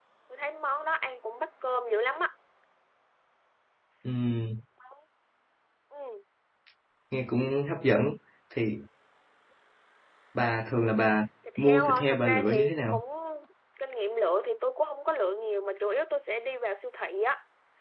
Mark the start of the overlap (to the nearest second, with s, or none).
11 s